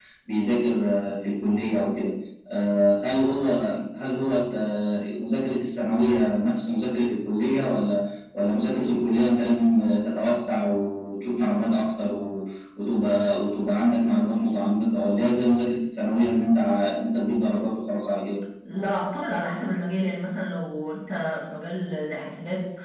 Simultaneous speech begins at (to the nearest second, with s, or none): none